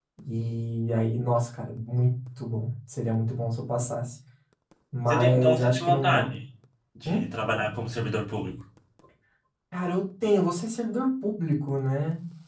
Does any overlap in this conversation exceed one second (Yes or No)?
Yes